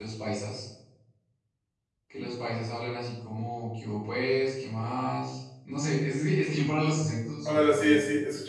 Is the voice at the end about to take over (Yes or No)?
Yes